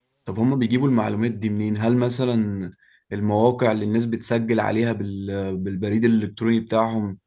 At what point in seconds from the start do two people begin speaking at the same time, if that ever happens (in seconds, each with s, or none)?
none